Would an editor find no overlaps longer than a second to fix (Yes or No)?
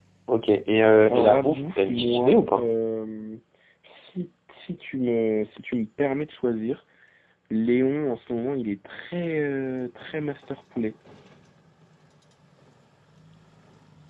No